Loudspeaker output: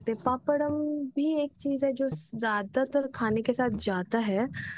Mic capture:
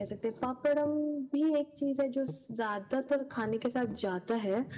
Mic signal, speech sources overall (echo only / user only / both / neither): echo only